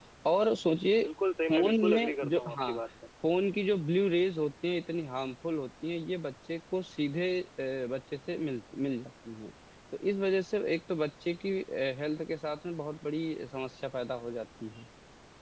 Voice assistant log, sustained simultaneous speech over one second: present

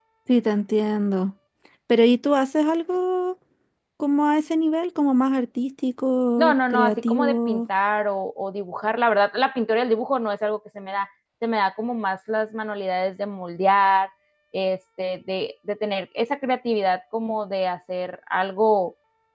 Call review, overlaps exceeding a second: present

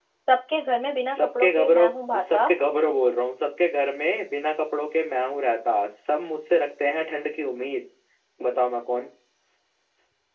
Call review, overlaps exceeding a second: present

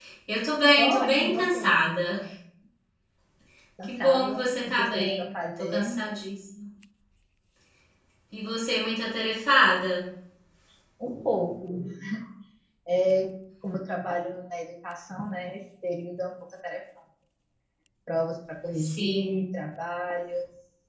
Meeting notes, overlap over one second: present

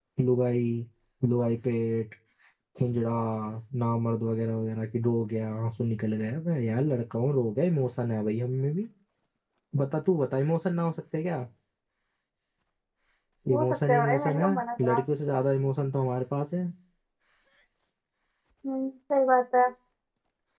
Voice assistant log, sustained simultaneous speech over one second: present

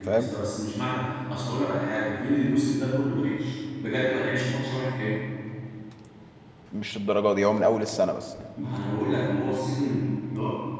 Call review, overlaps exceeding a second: none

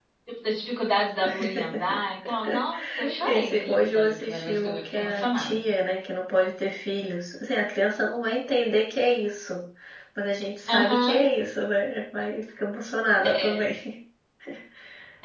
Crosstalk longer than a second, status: present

